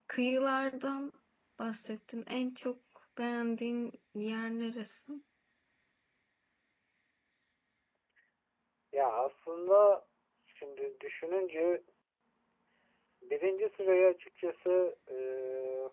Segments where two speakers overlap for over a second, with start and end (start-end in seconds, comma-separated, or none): none